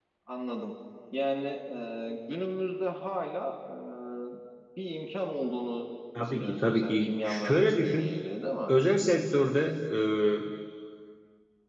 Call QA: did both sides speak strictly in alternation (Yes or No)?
No